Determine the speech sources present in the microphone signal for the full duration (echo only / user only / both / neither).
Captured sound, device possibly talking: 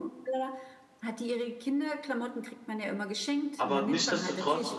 both